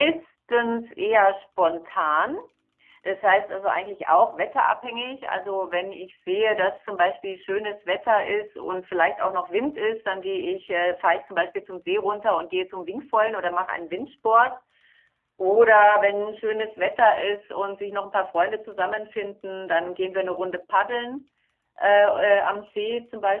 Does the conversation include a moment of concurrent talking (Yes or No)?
No